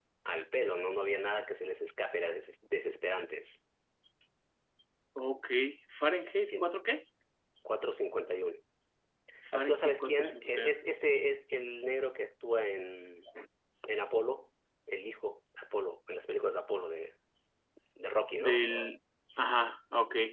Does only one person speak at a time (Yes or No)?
No